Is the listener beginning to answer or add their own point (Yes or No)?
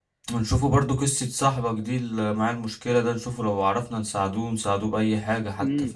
Yes